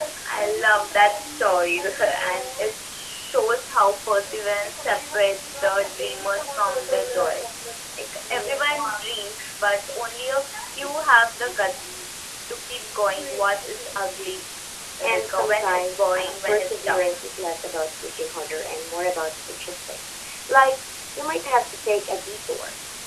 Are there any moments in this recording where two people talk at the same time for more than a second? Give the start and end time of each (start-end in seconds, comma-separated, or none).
15.0-17.1